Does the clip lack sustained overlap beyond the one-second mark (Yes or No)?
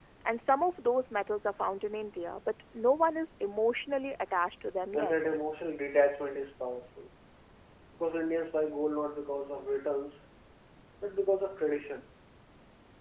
Yes